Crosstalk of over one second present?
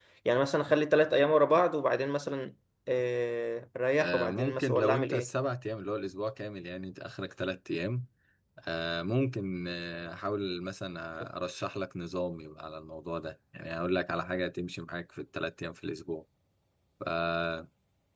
Yes, from 4.0 s

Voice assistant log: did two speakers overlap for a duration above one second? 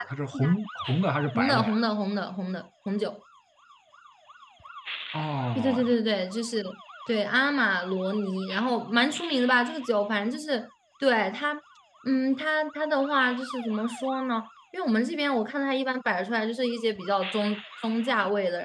No

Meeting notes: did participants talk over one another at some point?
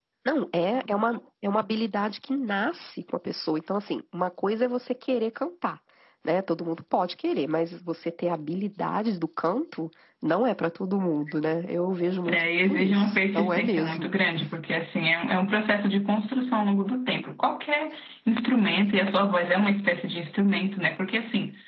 Yes, from 12.3 s

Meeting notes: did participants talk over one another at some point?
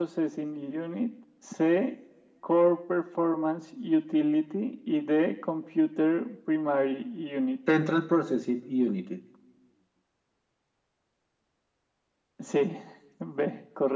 No

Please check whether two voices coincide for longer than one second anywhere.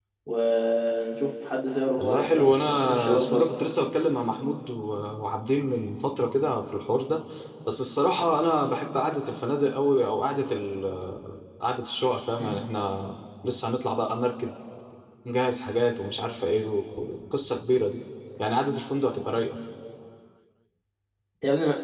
Yes, from 2.0 s

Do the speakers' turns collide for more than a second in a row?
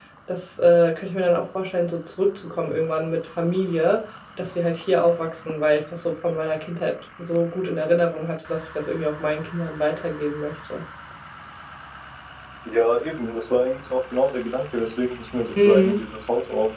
No

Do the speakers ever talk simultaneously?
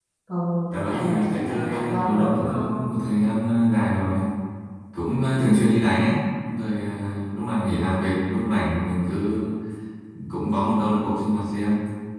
Yes, from 0.7 s

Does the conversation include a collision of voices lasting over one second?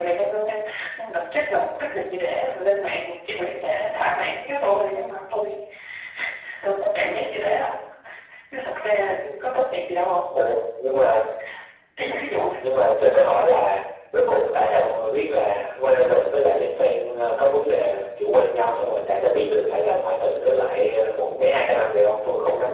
No

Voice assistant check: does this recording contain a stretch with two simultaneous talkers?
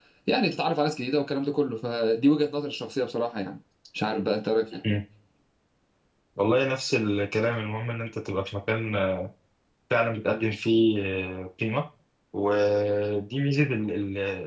No

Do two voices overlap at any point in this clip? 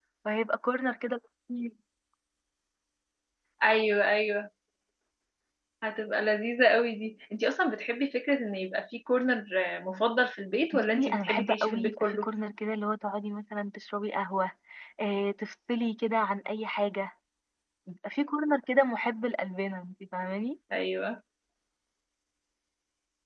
Yes, from 10.7 s

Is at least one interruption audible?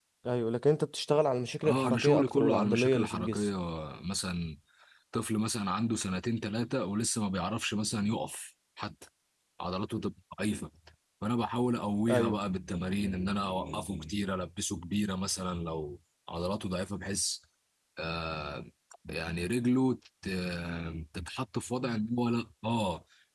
Yes, from 1.6 s

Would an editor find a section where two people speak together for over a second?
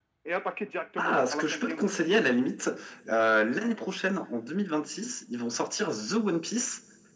Yes, from 1.0 s

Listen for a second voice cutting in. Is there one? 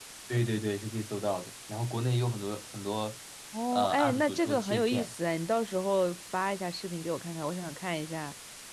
Yes, from 3.7 s

